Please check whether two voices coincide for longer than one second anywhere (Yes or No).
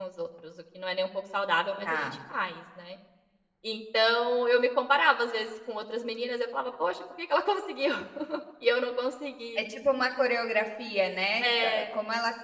No